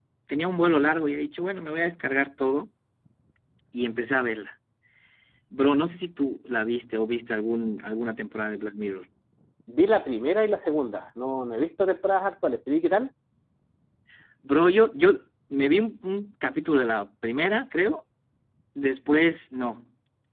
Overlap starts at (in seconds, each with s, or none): none